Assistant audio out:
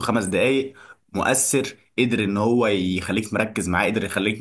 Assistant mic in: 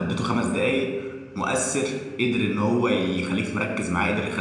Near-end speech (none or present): none